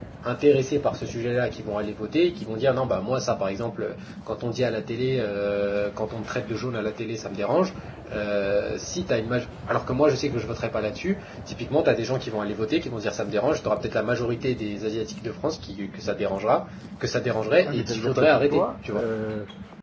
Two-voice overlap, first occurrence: 17.6 s

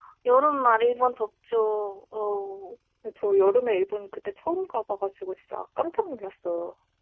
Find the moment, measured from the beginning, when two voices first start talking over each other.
none

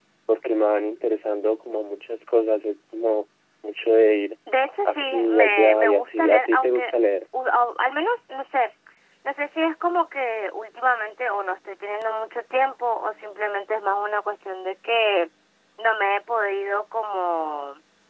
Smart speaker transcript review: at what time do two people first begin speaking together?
4.8 s

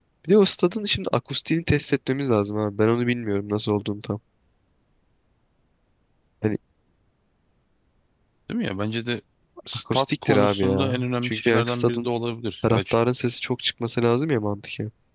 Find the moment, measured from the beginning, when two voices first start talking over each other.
9.9 s

